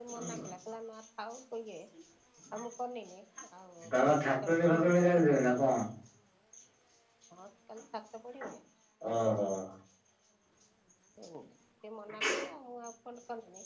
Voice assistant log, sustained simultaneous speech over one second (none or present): present